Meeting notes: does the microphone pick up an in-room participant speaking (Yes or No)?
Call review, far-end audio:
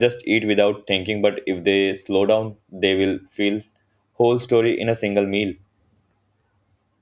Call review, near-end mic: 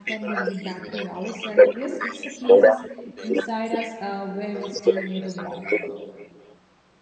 Yes